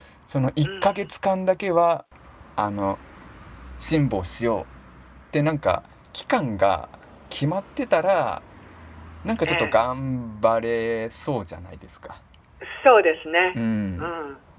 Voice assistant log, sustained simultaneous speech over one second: none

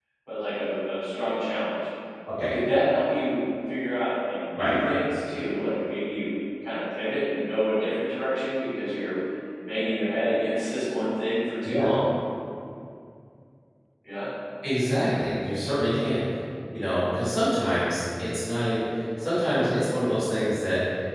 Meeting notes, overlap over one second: none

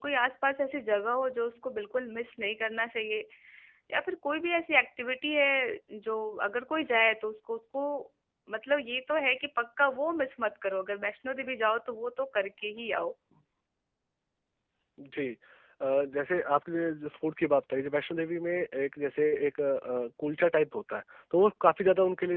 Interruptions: none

